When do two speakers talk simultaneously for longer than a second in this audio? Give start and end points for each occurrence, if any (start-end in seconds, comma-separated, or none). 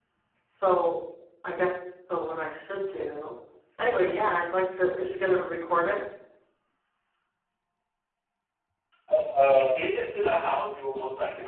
none